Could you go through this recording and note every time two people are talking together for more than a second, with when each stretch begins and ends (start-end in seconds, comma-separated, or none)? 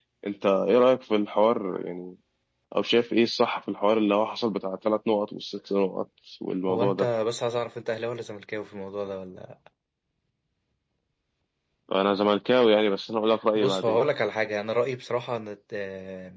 none